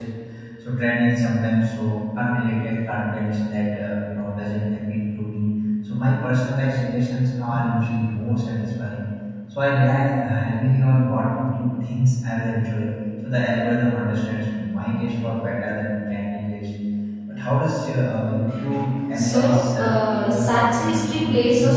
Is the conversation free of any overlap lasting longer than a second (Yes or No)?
No